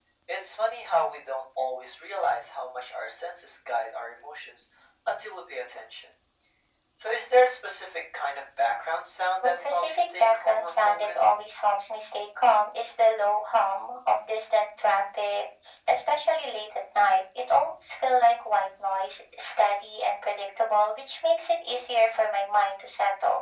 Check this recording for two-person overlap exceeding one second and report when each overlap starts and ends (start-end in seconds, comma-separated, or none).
9.4-11.2